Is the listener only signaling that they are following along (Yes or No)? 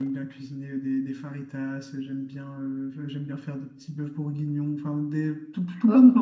Yes